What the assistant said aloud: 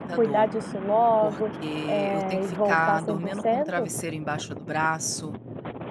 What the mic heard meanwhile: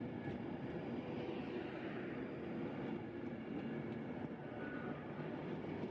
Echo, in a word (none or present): none